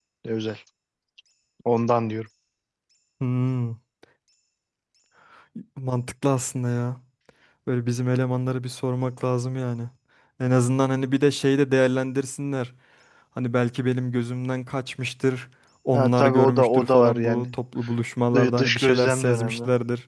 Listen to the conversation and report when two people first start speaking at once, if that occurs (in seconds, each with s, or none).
15.9 s